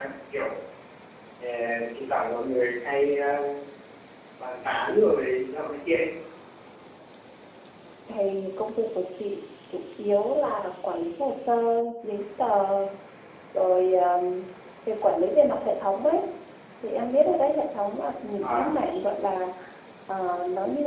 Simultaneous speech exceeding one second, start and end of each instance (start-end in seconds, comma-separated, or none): none